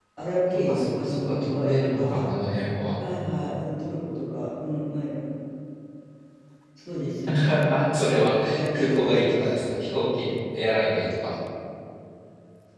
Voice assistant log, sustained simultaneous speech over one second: present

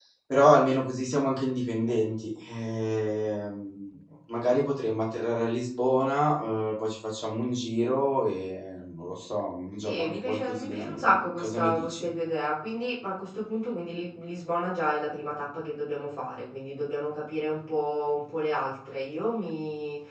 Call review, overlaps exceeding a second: present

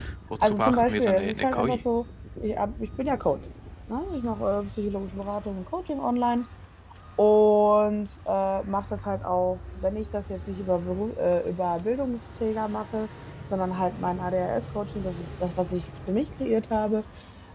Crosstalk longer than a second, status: present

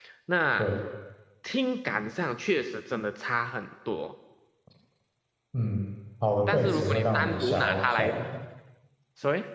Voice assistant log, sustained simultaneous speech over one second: present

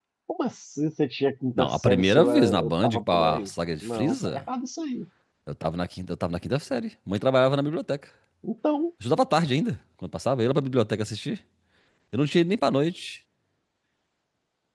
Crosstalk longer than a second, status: present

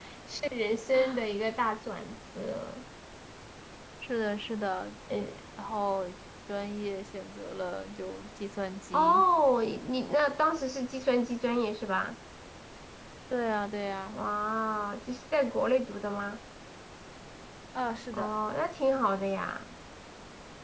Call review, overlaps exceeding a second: none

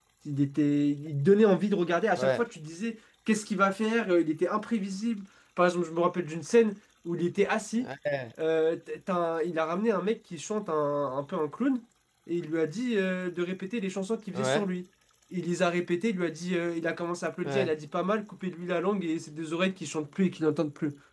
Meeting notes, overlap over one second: none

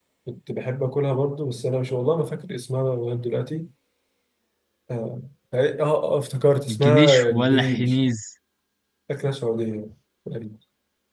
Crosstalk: present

